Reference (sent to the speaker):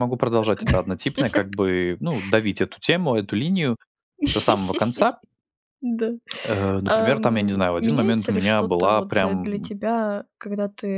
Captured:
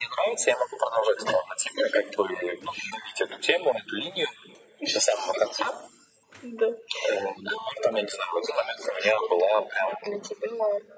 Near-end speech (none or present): none